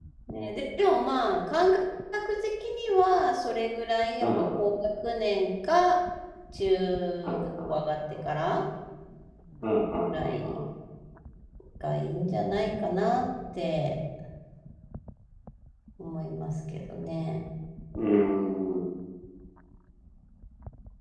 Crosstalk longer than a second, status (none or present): none